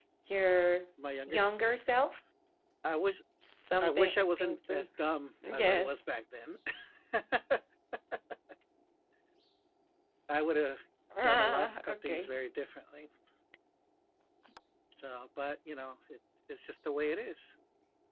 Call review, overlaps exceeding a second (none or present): present